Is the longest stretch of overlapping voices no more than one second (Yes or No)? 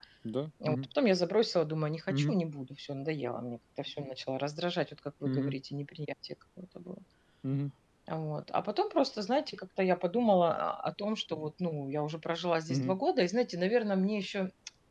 Yes